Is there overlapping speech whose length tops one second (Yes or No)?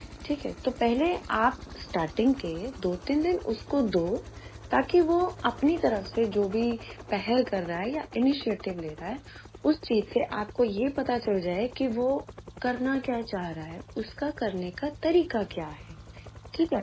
No